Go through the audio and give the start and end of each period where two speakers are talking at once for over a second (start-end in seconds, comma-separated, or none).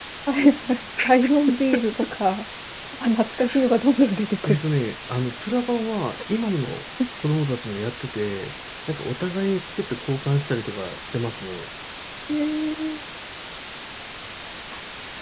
none